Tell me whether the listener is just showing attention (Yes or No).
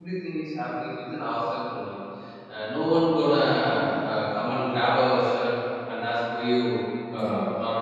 Yes